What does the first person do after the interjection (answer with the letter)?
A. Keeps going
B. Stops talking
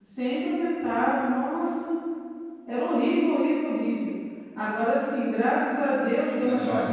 A